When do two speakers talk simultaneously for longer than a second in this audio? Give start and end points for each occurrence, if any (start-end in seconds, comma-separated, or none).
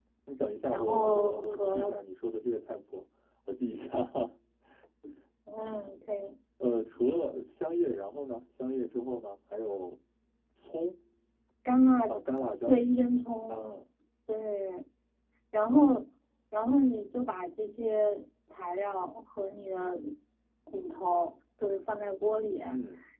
0.7-1.9